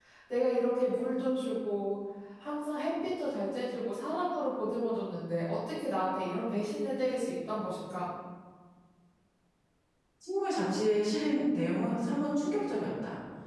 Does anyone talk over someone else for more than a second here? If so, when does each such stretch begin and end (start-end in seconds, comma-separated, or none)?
none